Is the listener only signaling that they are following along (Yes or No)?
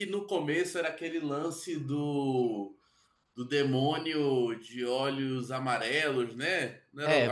No